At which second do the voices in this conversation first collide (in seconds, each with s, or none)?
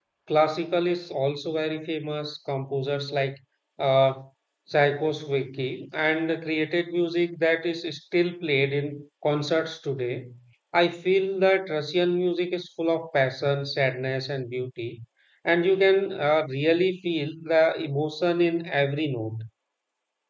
none